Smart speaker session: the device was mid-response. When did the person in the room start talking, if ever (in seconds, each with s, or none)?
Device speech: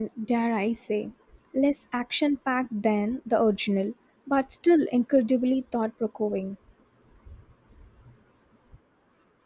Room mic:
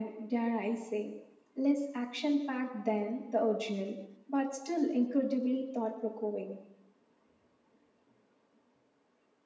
none